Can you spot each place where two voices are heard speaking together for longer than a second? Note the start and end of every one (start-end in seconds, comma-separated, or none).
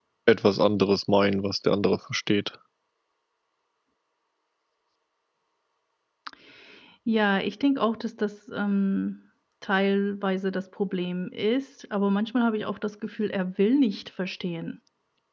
none